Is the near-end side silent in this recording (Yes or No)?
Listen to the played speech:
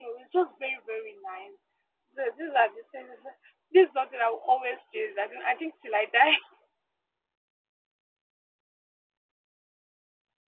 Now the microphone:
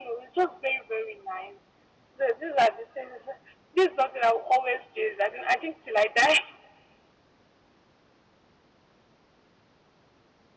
Yes